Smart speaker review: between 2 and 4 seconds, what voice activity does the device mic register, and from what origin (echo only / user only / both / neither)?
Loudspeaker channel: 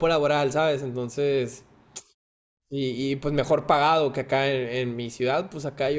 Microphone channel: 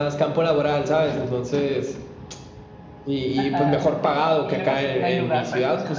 both